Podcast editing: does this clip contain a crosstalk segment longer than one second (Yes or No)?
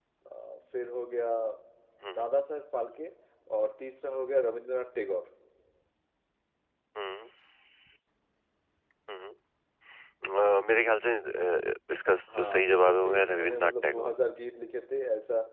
Yes